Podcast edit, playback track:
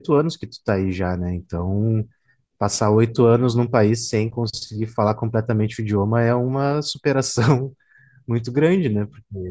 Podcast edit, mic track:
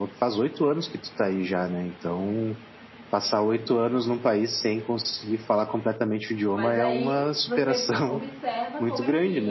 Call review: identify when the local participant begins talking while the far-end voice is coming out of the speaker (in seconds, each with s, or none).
6.5 s